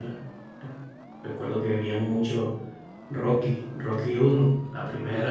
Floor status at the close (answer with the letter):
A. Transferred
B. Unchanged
B